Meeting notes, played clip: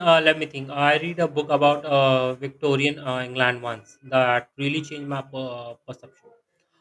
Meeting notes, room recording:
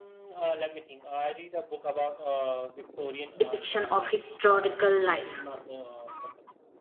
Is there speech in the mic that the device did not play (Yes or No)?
Yes